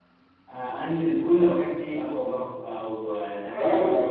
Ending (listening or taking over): taking over